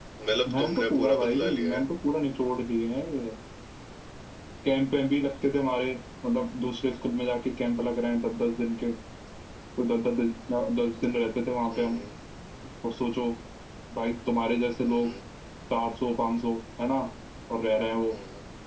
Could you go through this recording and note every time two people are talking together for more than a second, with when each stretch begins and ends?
0.5-1.8

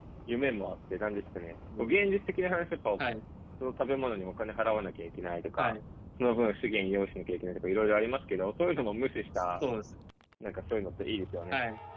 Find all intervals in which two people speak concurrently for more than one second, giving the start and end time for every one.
none

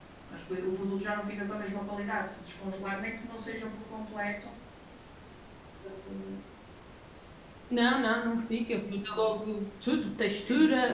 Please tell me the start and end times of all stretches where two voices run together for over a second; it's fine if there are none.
none

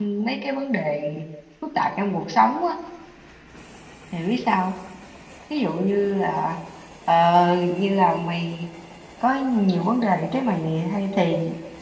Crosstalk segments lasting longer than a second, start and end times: none

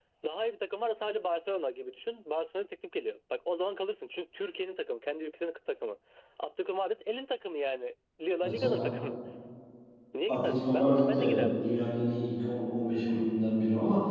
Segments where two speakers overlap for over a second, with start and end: 10.3-11.6

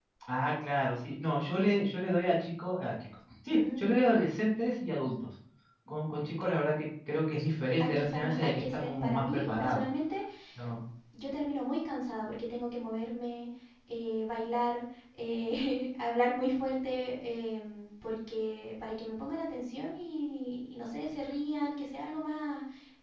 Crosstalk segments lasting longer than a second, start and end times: 7.8-9.8

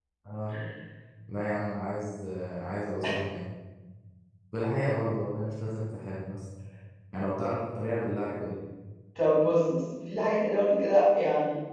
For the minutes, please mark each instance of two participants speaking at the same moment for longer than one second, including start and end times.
none

